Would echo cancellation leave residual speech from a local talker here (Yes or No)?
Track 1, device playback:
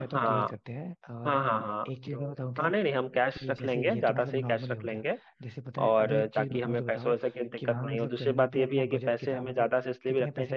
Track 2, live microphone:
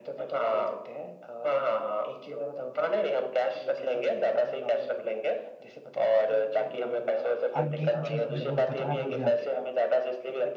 Yes